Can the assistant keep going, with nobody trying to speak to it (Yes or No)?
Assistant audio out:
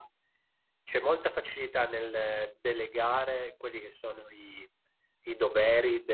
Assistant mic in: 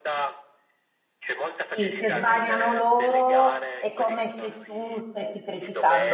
No